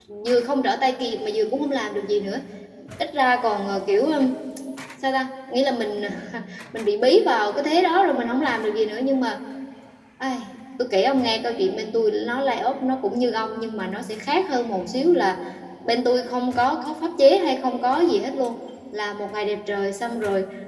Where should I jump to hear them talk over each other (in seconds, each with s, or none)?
none